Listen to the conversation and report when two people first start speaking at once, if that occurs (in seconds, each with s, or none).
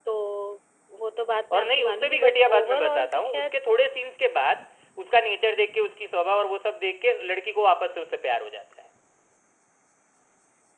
1.5 s